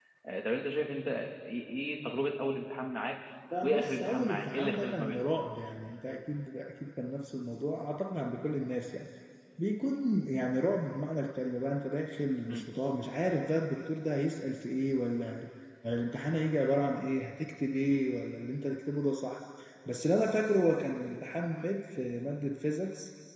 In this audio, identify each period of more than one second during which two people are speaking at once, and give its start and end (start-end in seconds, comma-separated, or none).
3.6-5.0